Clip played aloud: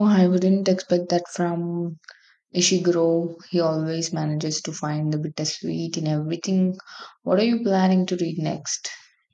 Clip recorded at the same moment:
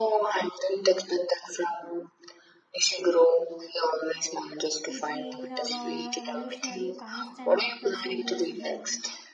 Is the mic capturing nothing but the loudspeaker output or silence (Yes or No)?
No